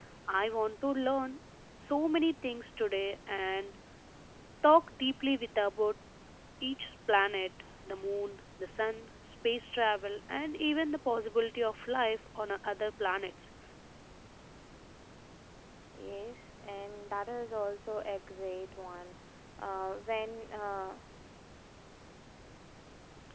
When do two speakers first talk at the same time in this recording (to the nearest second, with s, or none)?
none